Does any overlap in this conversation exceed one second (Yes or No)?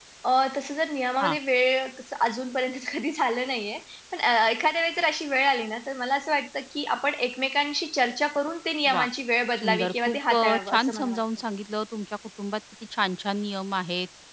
Yes